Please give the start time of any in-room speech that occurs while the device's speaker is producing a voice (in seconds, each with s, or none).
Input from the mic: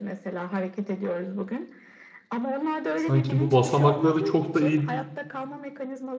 2.9 s